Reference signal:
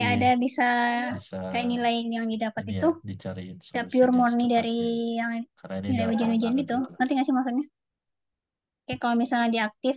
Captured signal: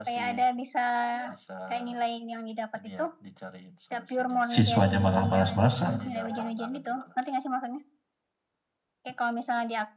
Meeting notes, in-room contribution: present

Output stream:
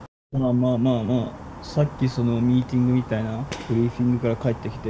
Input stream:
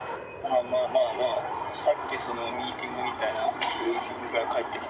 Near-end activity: none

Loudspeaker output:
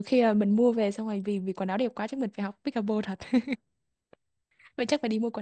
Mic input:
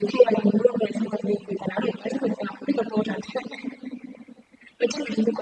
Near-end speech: none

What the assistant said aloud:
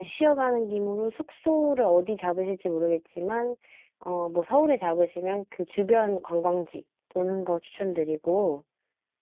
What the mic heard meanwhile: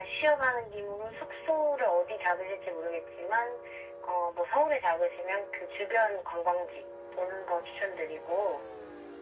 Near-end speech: none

